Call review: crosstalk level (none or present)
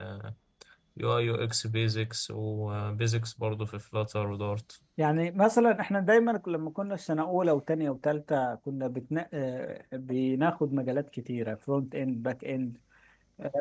none